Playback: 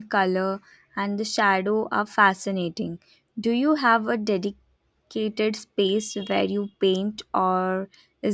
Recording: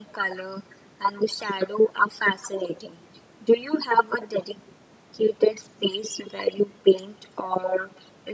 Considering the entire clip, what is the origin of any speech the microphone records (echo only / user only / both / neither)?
echo only